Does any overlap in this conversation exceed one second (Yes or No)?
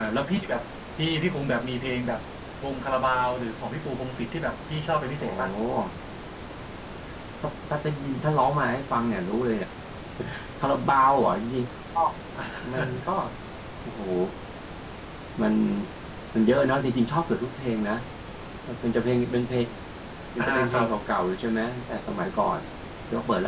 No